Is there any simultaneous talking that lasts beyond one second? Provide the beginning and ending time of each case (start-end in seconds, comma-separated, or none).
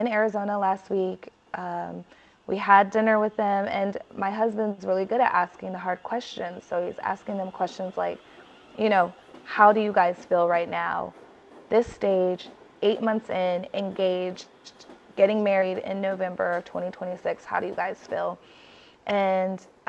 none